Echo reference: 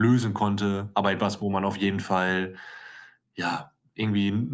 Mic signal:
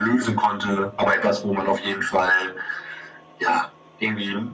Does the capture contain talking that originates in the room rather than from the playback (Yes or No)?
No